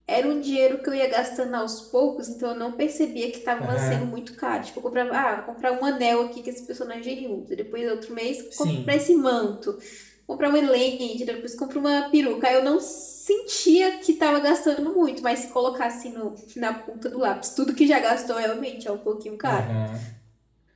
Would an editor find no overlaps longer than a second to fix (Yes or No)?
Yes